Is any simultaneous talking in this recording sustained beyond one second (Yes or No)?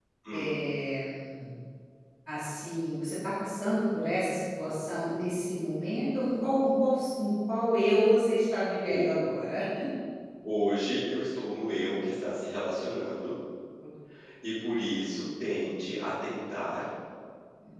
No